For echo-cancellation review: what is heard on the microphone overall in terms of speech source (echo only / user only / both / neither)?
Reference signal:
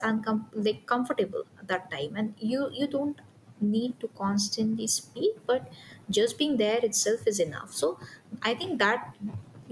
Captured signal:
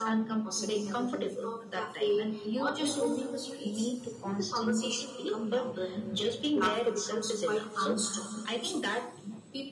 both